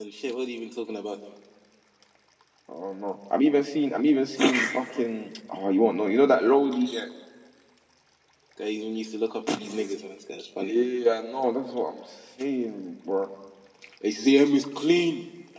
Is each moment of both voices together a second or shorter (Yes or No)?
Yes